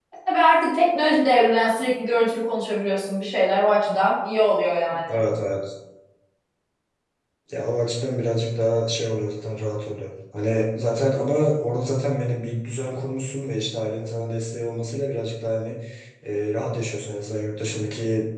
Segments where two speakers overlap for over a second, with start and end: none

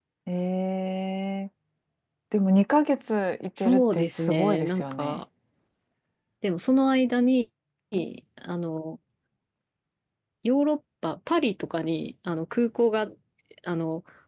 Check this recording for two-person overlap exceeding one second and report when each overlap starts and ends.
3.6-5.2

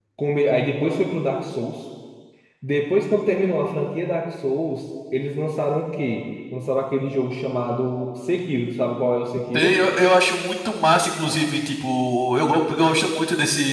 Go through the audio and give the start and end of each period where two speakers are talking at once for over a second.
none

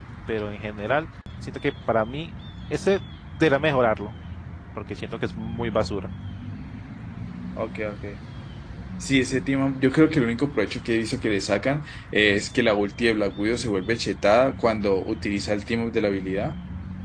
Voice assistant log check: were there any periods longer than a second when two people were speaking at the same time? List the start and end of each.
none

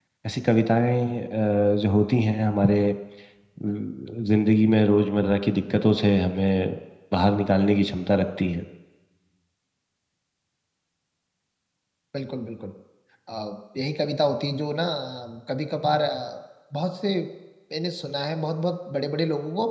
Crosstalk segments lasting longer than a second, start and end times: none

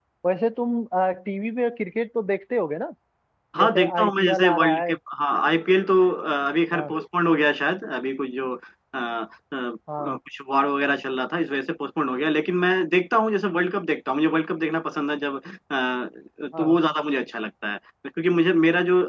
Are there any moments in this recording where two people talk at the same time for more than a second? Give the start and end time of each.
3.6-4.9

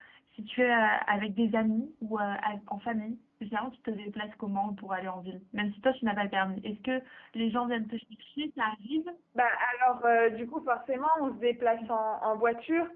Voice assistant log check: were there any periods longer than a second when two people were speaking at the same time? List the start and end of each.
none

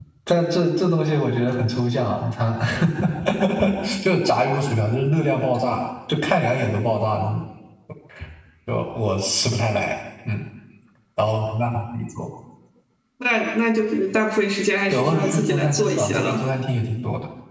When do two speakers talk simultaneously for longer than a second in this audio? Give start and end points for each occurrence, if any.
14.9-16.4

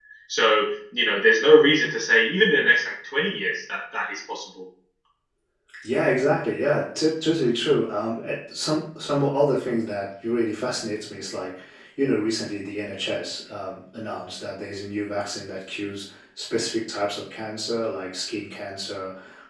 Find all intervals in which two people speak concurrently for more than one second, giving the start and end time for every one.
none

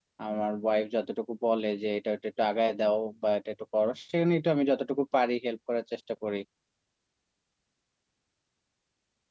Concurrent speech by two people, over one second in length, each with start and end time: none

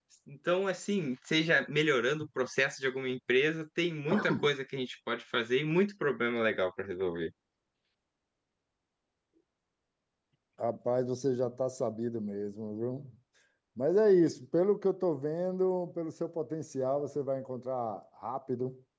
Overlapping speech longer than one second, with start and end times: none

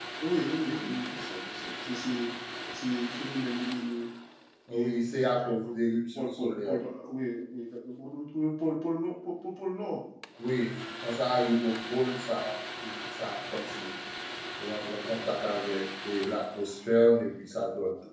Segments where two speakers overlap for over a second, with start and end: 4.7-6.8

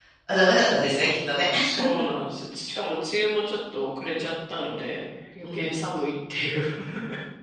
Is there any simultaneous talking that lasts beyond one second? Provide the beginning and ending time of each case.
none

